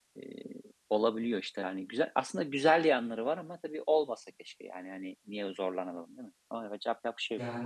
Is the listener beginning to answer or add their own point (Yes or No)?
Yes